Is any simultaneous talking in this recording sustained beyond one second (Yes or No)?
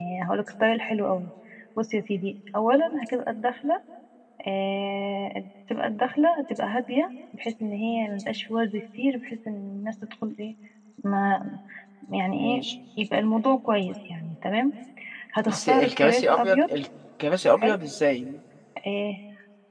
Yes